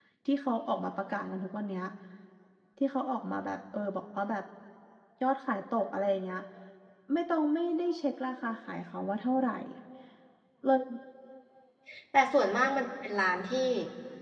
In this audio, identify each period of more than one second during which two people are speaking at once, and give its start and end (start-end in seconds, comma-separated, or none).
none